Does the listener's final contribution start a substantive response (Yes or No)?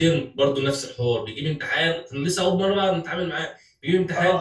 Yes